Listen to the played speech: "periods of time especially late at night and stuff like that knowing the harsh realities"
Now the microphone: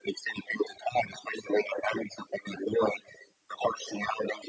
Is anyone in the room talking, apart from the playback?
No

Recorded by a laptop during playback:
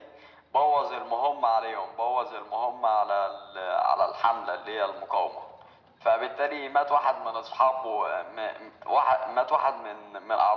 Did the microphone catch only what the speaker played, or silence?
Yes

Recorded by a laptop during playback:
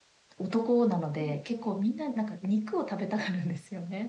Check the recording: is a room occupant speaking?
Yes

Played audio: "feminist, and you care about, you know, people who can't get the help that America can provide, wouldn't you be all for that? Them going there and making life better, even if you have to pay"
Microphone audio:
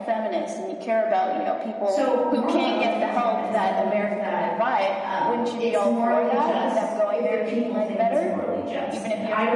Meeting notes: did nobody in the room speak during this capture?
No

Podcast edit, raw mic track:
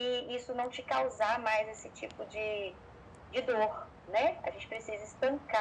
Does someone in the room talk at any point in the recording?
No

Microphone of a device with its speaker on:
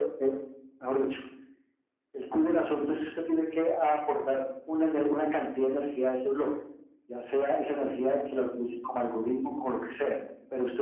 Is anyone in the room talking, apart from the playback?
No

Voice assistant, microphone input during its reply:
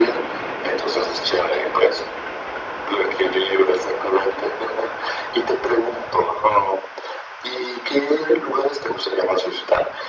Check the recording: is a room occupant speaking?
No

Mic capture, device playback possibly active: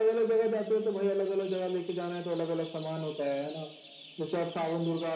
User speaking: No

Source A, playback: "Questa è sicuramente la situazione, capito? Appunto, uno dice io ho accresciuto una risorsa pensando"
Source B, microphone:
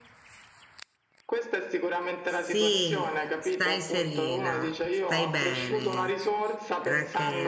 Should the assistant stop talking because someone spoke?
Yes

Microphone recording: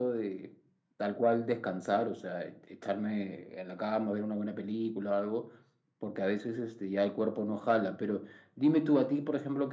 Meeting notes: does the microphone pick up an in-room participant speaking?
No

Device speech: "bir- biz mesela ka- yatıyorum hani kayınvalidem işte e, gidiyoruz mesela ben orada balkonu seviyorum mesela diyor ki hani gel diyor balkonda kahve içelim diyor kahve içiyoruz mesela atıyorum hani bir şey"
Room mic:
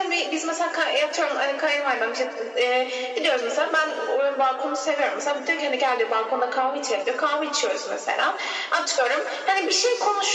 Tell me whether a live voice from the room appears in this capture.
No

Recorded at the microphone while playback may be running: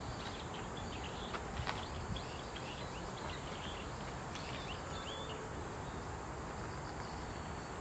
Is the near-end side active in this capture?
No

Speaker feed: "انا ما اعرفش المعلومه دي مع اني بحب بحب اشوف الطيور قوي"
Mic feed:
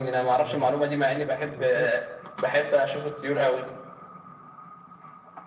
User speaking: Yes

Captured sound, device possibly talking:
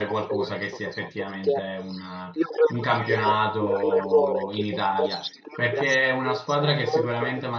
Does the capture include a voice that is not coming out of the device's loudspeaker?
Yes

